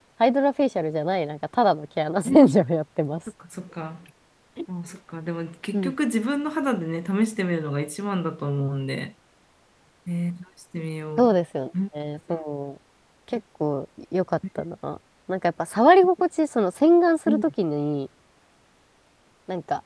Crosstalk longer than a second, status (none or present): none